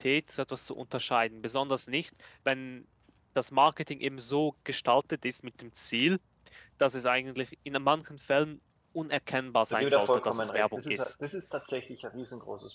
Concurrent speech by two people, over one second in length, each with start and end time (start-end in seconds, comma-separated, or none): 9.7-11.1